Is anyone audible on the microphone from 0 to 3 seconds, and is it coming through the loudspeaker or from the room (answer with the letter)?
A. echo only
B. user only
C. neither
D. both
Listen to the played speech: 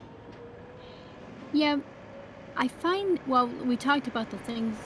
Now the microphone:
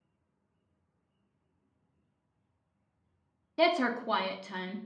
C